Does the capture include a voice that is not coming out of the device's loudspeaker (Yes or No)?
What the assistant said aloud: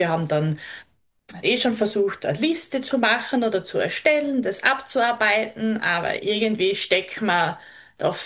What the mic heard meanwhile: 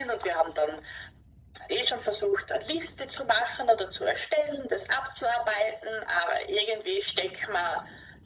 No